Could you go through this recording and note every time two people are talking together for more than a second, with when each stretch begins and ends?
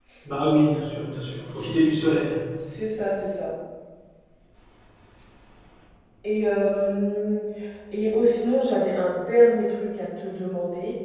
none

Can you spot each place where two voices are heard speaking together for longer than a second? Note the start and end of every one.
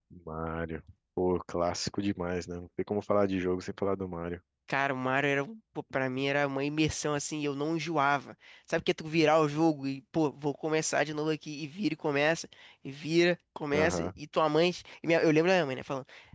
none

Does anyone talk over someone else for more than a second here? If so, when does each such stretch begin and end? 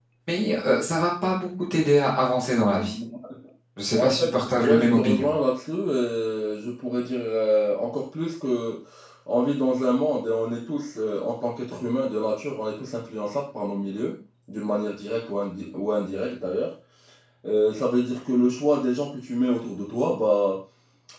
4.0-5.3

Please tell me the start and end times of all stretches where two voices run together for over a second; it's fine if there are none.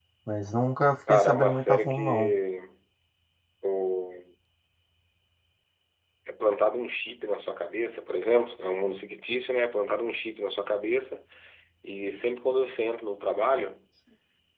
1.1-2.3

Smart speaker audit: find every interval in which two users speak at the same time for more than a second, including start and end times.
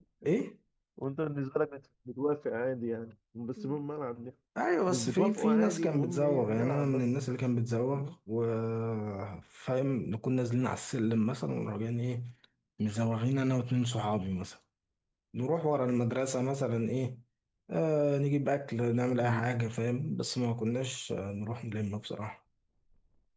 4.9-7.0

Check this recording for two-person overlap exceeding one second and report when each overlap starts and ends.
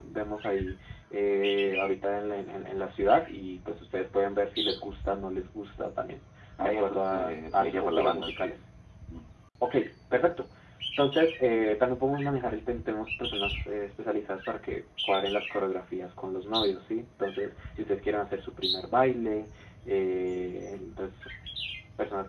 6.6-8.6

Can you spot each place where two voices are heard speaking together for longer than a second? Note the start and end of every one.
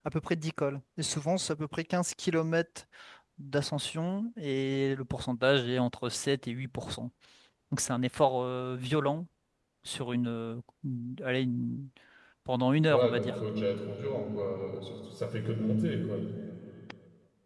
none

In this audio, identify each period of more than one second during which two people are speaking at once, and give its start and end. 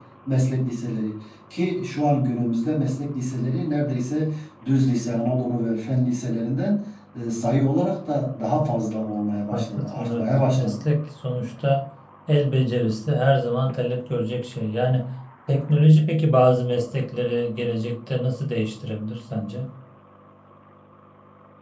9.5-10.8

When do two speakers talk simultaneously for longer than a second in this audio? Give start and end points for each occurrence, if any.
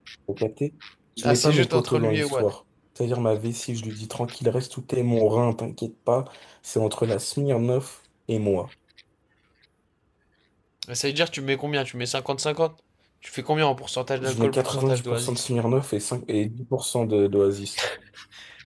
1.2-2.5, 14.2-15.4

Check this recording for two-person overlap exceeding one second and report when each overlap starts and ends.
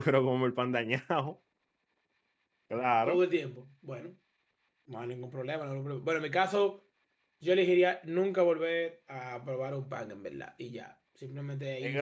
none

